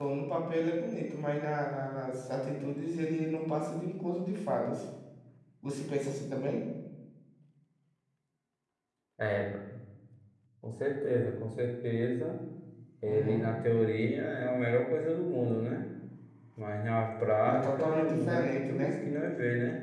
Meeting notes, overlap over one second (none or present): present